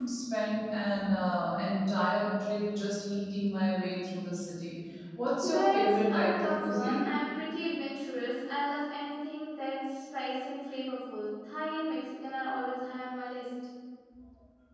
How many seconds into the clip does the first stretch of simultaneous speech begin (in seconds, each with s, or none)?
5.4 s